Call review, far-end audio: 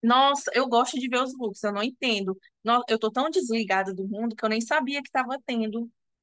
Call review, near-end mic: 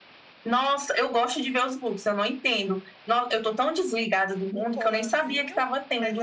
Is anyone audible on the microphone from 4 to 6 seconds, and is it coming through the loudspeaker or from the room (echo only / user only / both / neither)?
both